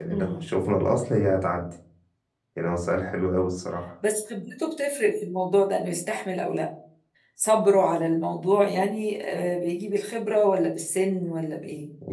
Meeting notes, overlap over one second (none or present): none